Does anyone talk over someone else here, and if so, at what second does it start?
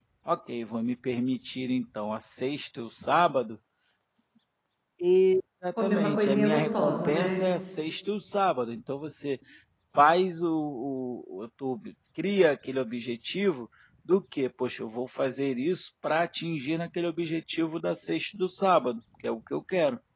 6 s

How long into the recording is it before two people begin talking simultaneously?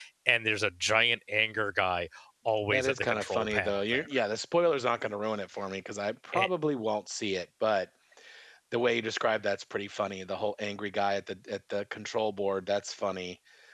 3 s

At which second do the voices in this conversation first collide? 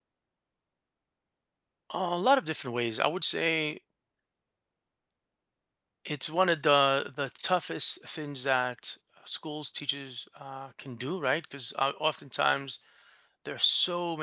none

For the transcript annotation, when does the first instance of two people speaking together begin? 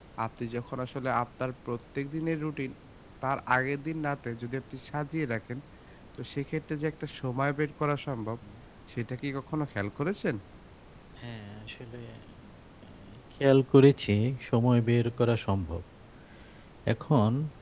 none

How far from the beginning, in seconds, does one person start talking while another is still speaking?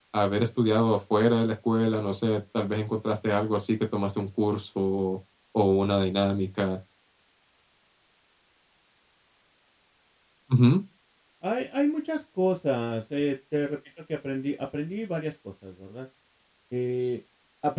none

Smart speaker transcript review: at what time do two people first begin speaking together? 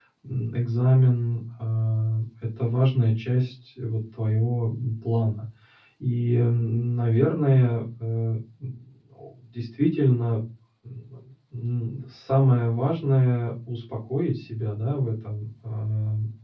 none

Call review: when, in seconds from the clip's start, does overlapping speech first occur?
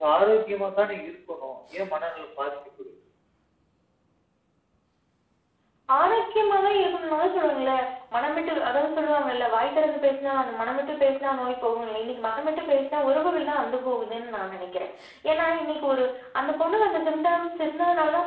none

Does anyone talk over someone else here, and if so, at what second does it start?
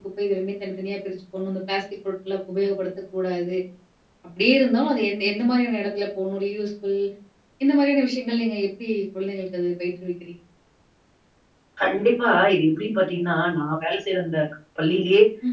none

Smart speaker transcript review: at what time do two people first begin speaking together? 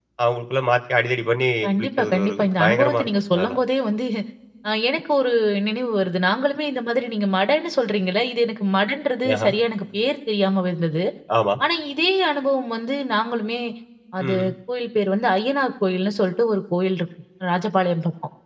2 s

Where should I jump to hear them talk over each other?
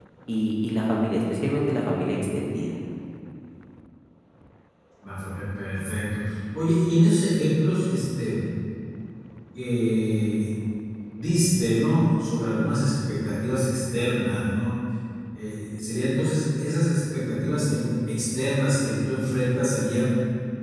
none

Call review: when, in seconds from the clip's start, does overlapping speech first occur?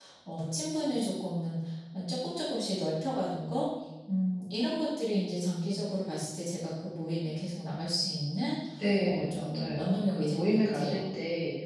9 s

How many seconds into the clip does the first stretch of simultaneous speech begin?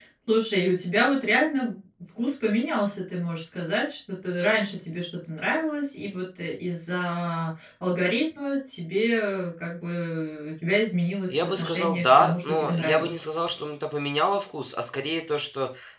11 s

